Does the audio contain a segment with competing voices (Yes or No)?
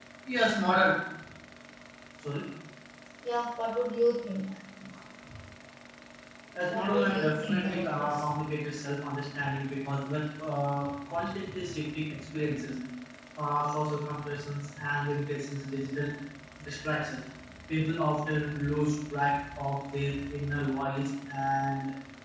Yes